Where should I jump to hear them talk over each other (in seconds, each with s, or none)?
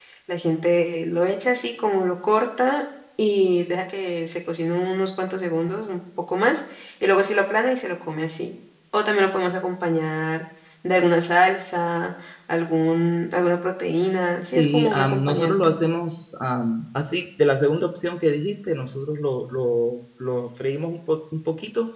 14.5 s